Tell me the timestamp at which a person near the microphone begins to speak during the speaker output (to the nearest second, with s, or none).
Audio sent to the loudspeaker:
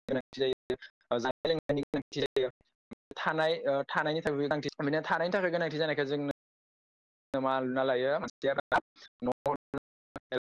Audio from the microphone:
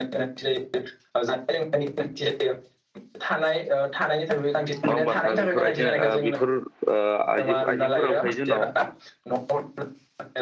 5 s